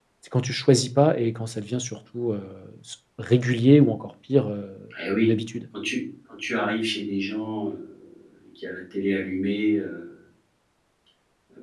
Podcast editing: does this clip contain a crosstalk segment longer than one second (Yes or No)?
No